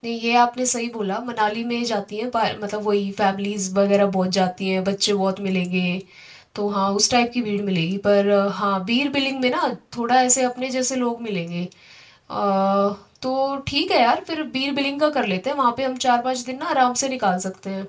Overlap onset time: none

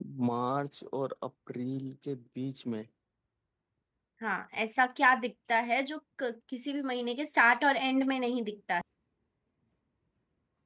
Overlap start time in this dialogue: none

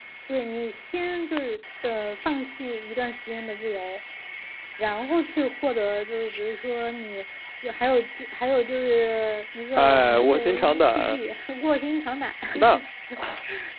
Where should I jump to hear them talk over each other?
9.8 s

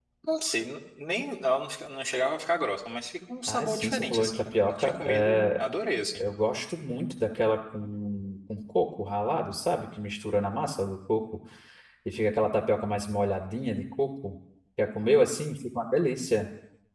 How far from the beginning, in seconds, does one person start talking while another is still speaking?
3.5 s

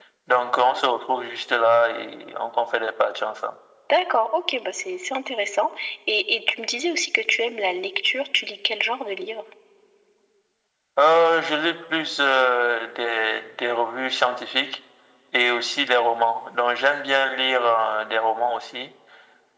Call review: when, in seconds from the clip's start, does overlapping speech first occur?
none

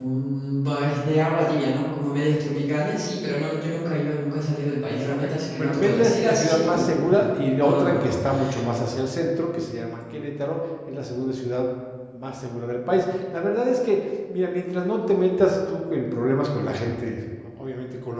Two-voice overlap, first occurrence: 5.2 s

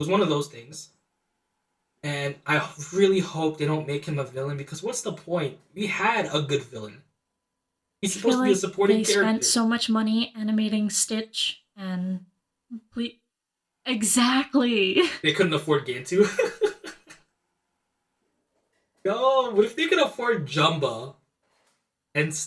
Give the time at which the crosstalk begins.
8.1 s

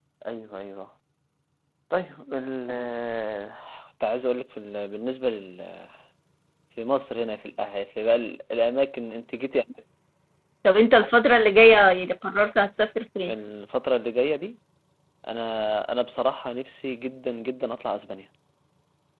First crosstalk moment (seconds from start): none

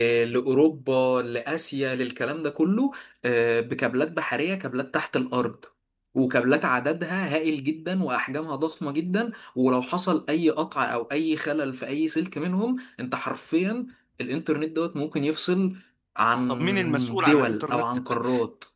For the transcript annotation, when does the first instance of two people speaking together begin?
16.5 s

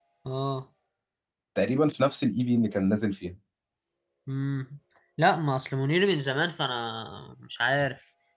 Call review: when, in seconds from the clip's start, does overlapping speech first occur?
none

